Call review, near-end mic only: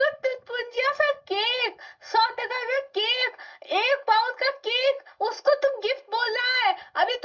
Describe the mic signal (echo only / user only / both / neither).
echo only